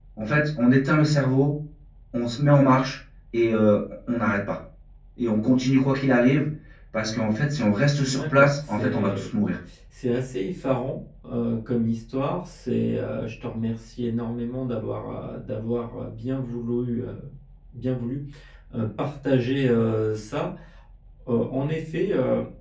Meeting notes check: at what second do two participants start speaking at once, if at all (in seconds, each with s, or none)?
8.0 s